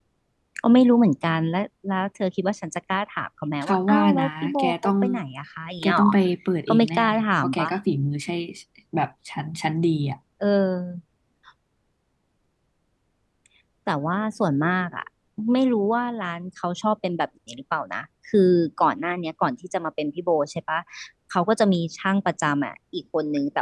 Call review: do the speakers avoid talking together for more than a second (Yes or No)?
No